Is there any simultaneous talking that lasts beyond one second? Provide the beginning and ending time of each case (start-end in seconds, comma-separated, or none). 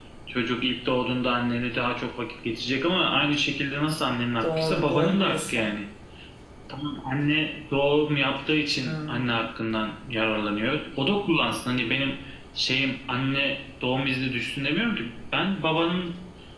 4.4-5.7